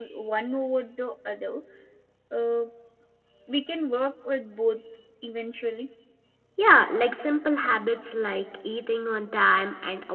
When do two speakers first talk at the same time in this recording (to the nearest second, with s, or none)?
none